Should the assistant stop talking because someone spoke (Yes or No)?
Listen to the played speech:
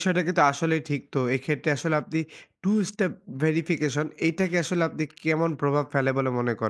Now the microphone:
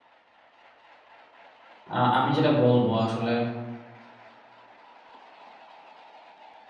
Yes